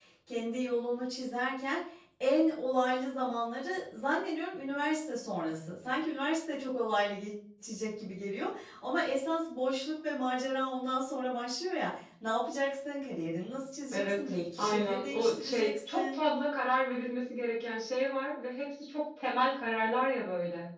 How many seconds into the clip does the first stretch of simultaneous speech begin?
14 s

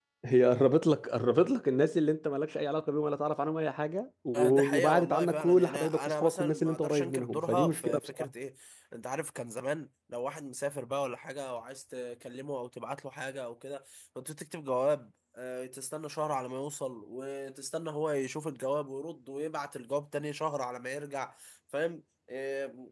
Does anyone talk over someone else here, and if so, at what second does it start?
4 s

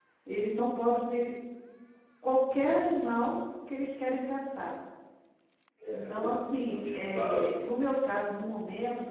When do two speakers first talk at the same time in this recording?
6 s

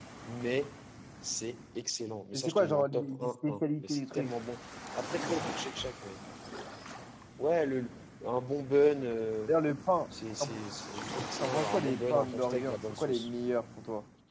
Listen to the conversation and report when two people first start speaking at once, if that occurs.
2 s

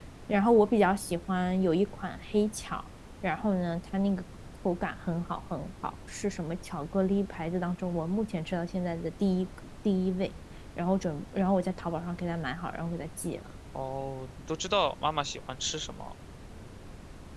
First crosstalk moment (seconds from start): none

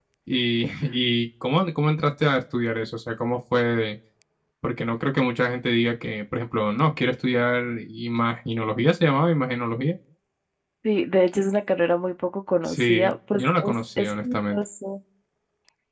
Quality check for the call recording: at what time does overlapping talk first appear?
13 s

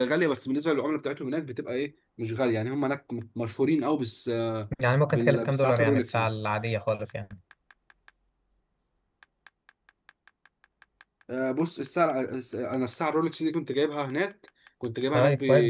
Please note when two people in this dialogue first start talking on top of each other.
5 s

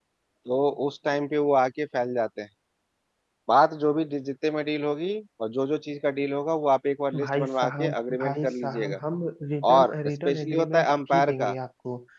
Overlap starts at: 7 s

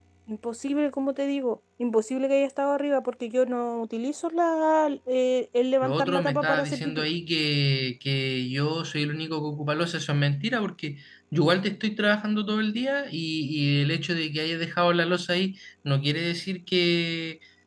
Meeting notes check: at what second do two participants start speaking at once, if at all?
6 s

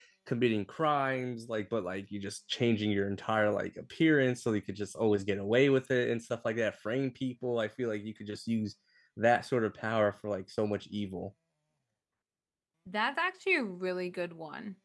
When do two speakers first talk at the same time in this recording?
none

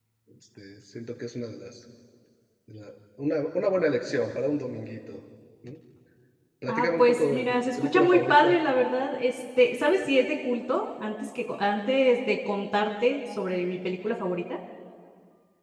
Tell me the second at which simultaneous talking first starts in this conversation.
7 s

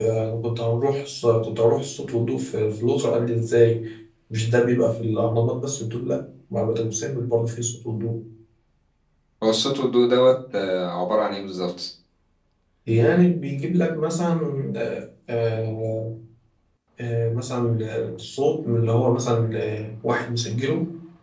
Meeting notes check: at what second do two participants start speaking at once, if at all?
none

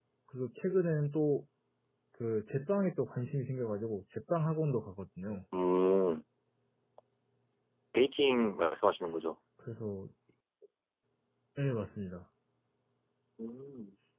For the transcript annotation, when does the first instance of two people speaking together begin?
none

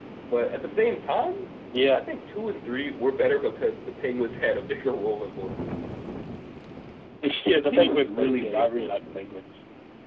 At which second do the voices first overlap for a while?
8 s

